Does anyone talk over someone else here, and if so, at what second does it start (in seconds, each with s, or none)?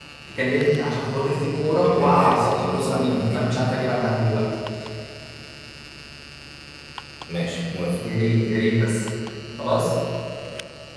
1.7 s